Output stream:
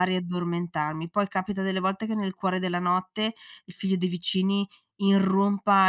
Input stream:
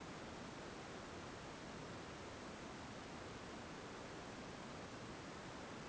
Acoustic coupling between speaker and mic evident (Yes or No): No